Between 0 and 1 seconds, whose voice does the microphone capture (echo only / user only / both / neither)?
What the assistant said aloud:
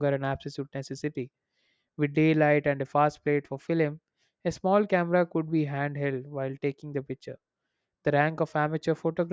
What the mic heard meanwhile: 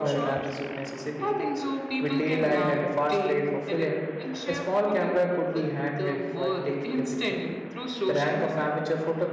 both